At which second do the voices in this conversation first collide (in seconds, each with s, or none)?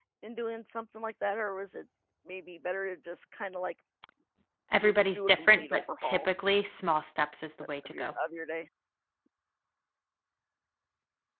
4.8 s